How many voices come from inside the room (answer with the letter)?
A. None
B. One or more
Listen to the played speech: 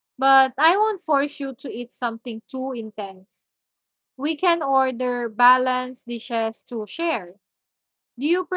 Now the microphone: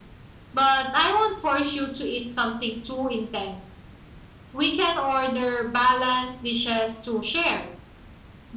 A